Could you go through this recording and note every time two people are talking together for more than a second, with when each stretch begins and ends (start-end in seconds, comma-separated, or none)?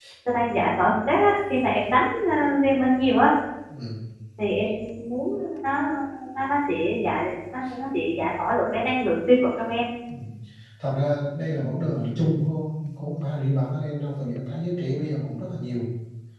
none